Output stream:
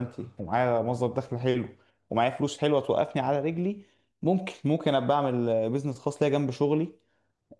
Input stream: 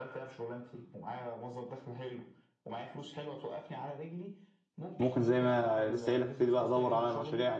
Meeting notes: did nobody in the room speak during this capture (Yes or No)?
No